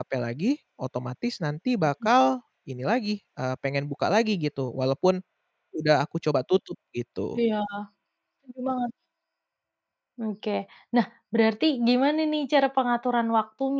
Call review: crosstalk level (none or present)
none